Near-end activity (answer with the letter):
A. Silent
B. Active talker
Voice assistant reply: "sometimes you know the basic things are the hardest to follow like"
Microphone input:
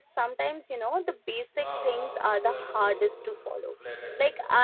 B